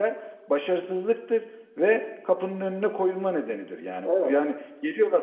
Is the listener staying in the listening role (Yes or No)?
Yes